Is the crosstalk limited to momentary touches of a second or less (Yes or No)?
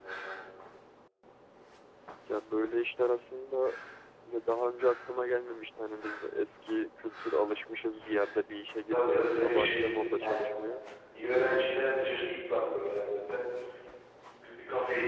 No